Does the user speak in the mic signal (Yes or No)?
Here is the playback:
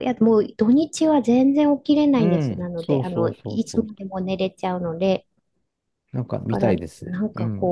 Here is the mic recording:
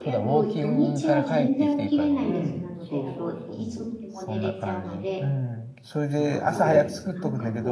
Yes